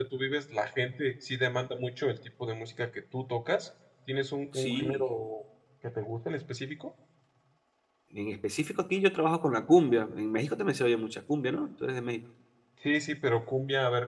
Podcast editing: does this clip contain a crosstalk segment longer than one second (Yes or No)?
No